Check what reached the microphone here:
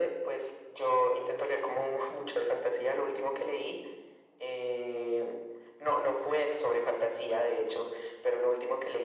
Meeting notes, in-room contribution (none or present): none